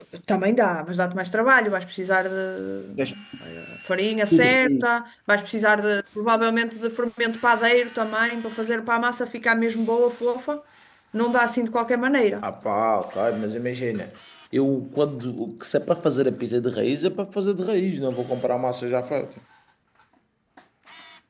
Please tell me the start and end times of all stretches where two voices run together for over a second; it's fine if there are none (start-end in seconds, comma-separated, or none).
none